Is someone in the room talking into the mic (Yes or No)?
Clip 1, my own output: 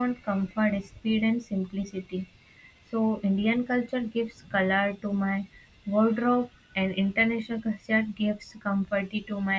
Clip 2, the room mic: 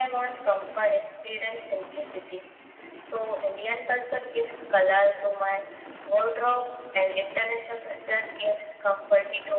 No